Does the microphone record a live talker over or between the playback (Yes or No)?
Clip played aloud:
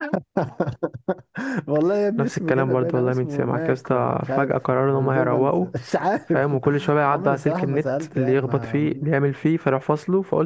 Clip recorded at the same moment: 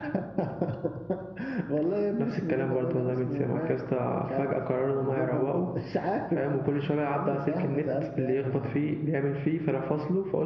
No